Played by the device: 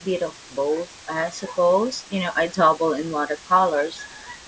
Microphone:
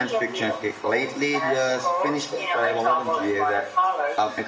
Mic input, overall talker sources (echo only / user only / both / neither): both